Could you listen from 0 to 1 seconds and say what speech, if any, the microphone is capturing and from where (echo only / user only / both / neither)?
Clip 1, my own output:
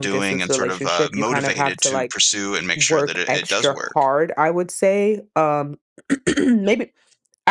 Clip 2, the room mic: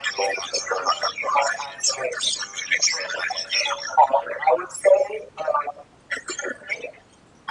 echo only